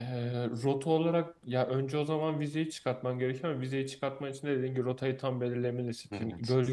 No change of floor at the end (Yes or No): Yes